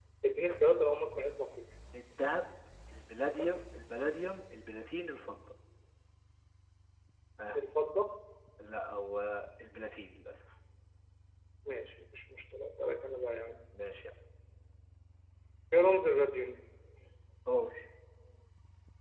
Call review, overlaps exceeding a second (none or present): none